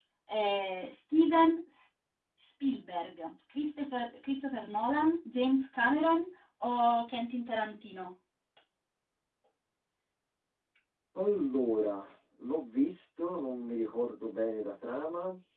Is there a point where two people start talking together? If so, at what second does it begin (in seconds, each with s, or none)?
none